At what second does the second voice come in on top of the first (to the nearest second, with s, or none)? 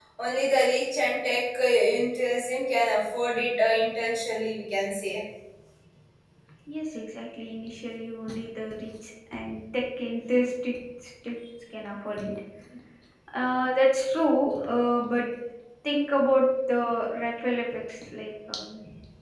none